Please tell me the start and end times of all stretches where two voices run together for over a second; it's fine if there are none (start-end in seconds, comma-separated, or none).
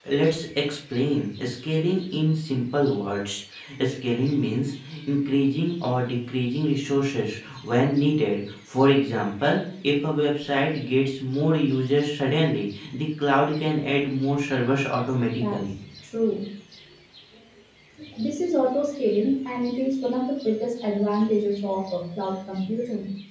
none